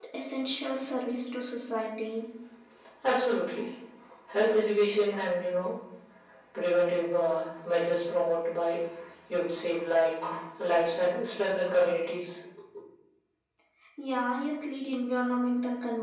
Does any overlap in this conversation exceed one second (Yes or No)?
No